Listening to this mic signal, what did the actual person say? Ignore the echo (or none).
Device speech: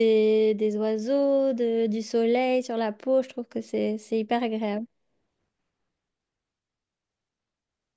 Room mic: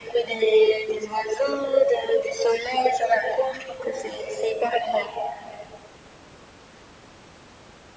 none